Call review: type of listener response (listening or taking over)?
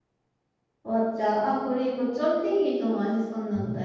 taking over